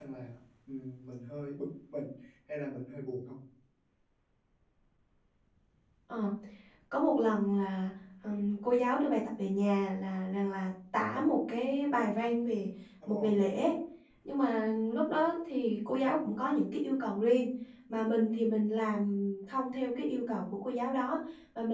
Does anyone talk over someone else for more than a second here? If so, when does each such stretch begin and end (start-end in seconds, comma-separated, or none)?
none